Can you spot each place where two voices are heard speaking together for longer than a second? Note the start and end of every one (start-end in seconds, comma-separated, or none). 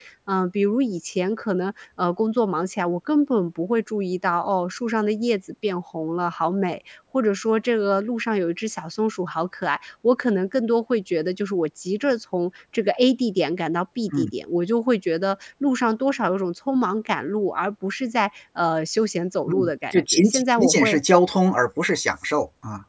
19.5-21.0